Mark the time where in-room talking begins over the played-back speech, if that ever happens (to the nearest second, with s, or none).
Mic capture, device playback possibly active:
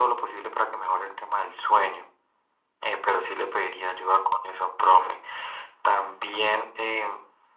none